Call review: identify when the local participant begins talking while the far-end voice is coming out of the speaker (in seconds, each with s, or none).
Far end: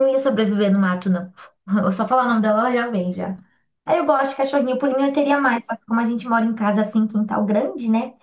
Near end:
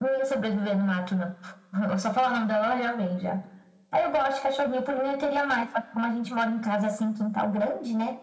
none